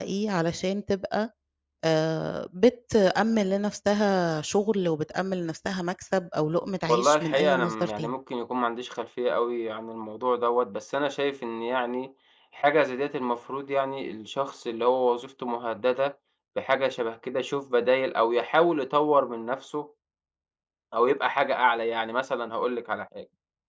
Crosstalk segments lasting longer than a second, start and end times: 6.9-8.1

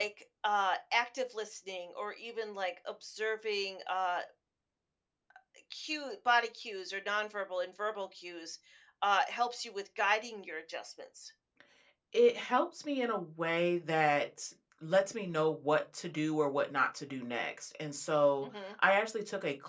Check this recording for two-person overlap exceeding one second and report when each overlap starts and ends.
none

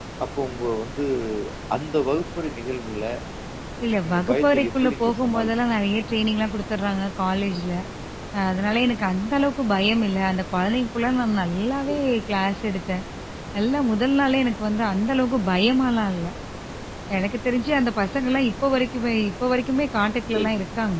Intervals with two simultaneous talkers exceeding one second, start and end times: 3.9-5.5

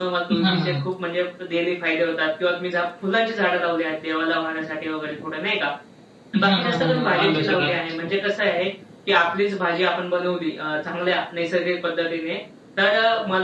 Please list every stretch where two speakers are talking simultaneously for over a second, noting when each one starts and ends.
6.4-7.7

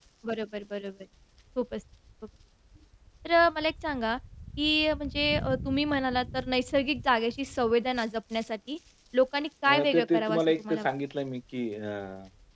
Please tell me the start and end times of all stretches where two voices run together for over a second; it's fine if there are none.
9.7-10.9

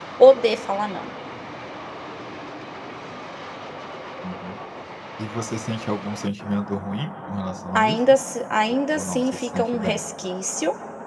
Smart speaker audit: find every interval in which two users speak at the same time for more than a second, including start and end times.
8.7-10.0

